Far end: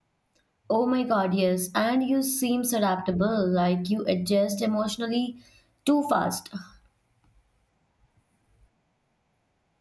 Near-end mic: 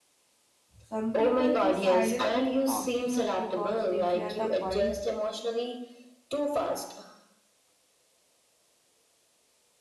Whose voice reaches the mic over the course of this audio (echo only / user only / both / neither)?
both